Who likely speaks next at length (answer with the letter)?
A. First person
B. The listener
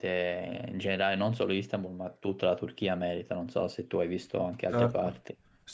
B